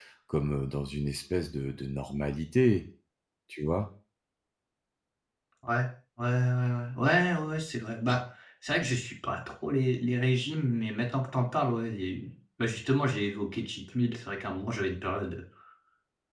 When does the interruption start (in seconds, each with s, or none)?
none